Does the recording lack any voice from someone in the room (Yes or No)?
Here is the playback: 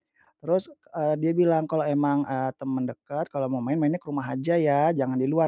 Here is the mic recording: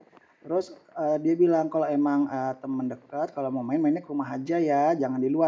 Yes